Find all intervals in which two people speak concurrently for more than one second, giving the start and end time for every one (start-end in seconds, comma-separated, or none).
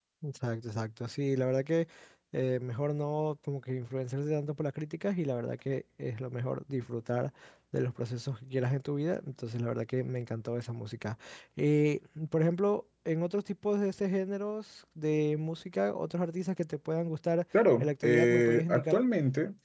17.8-19.0